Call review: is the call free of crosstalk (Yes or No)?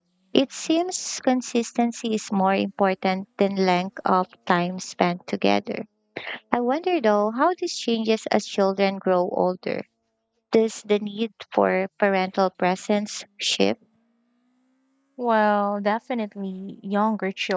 Yes